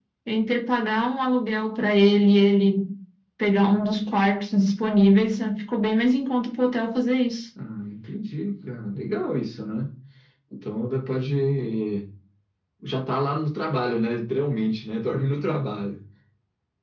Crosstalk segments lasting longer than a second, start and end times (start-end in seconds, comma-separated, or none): none